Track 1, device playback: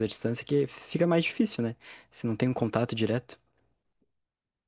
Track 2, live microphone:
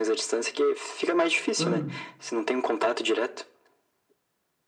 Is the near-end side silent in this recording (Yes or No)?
No